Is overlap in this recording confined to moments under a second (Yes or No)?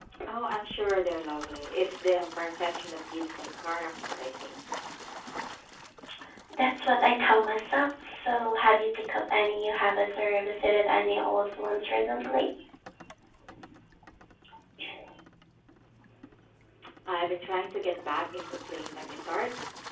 Yes